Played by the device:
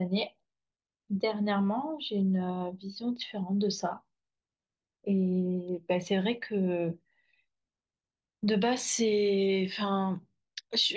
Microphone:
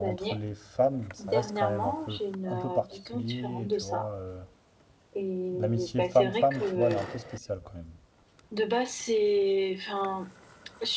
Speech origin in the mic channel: both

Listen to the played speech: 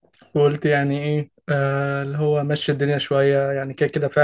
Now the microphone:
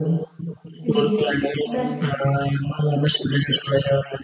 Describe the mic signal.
both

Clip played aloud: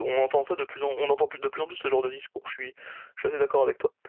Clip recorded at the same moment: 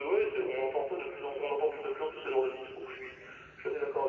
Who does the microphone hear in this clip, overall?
echo only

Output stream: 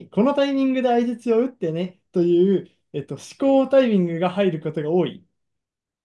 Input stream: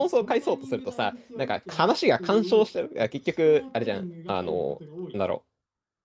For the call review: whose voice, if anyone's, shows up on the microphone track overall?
both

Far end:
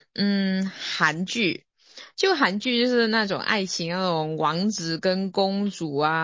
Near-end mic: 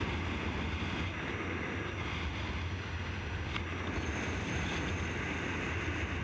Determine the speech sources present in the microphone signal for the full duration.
neither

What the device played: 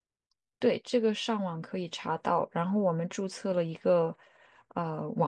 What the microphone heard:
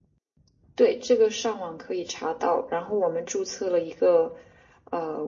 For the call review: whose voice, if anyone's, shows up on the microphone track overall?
echo only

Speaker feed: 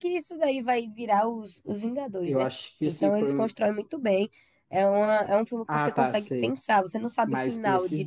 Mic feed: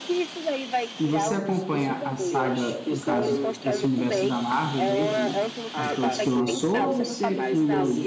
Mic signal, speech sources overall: both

